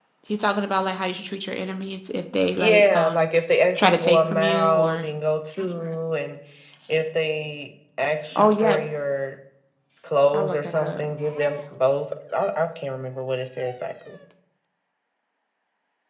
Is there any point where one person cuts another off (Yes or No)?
Yes